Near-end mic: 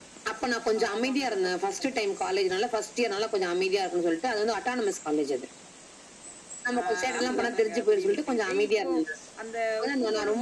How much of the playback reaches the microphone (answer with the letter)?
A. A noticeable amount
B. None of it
A